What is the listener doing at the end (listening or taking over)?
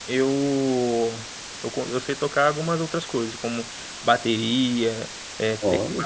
listening